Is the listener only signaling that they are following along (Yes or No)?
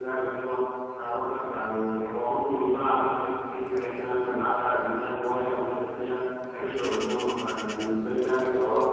No